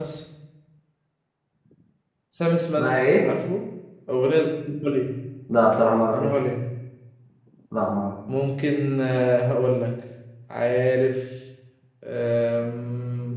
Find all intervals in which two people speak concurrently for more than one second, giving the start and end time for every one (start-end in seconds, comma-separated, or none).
none